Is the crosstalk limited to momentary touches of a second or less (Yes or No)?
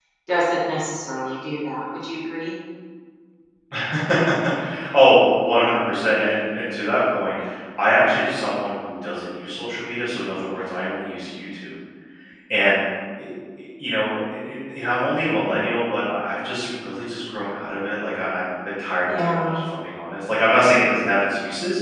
Yes